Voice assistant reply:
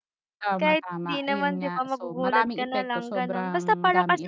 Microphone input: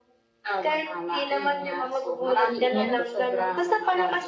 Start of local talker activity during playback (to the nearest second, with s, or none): 3 s